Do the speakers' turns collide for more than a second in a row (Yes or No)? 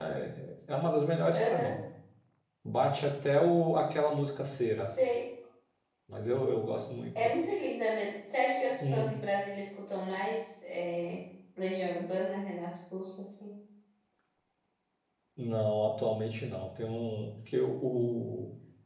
No